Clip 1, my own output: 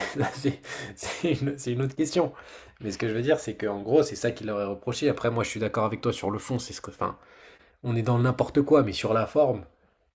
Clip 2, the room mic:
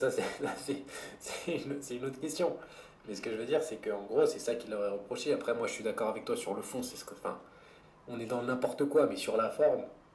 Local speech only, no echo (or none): none